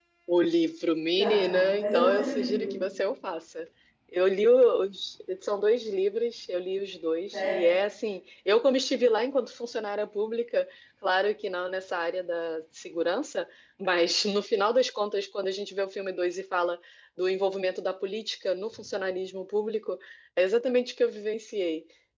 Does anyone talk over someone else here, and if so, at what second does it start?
1.2 s

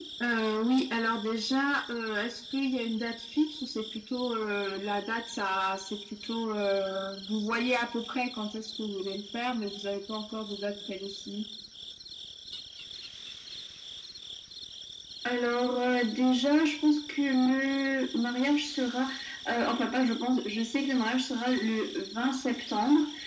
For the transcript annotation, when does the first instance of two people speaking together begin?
none

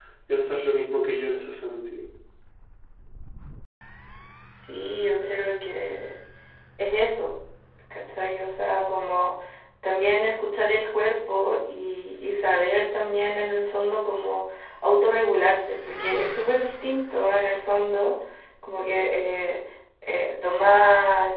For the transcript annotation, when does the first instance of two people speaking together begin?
none

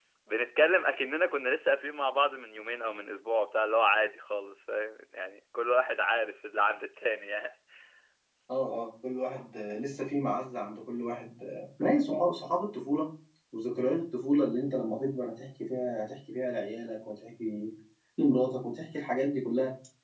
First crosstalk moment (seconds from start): none

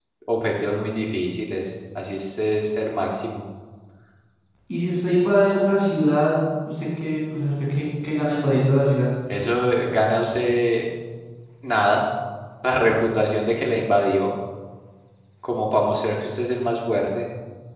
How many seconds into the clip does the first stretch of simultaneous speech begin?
none

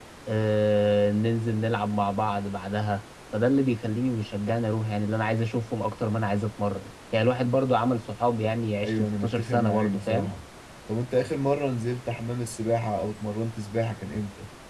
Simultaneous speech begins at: 8.8 s

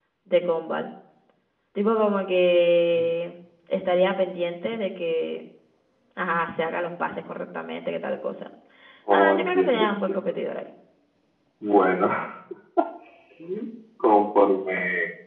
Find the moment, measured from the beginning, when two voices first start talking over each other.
9.1 s

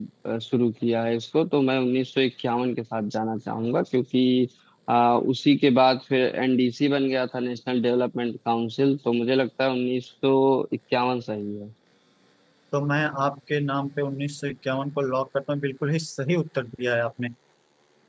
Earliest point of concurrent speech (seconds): none

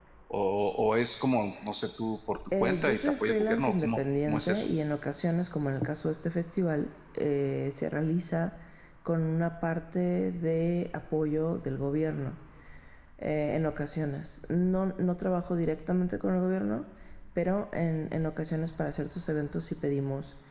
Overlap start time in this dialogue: 2.5 s

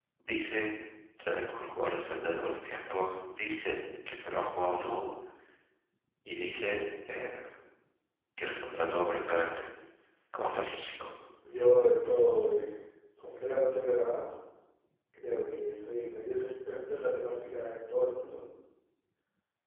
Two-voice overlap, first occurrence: none

